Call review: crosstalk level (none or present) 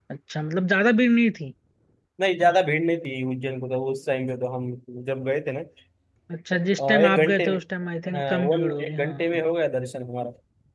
present